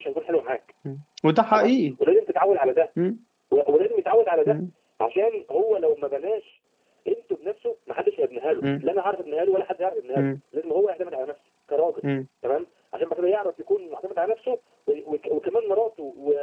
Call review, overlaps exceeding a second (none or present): none